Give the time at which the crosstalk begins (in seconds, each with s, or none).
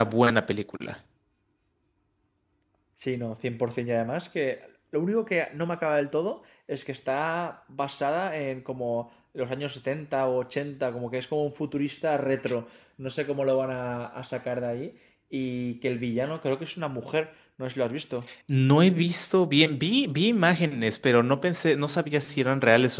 none